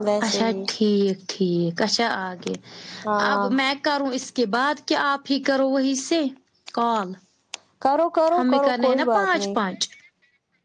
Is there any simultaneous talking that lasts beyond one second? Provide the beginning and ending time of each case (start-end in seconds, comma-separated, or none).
8.4-9.6